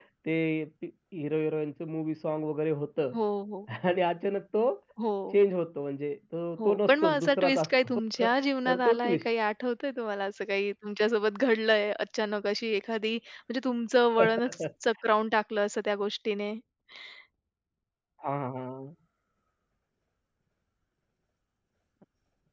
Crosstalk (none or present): present